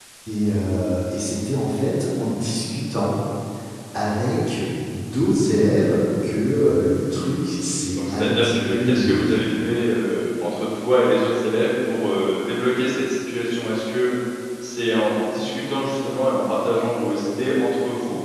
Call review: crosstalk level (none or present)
present